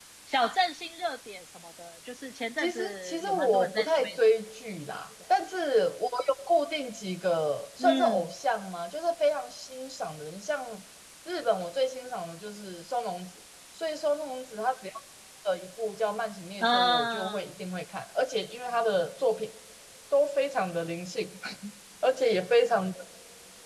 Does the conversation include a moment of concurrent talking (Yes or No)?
Yes